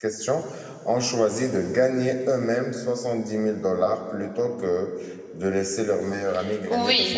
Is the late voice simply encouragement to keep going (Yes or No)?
No